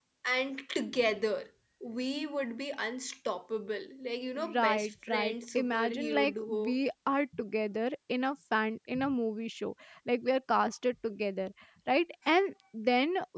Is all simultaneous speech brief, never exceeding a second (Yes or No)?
No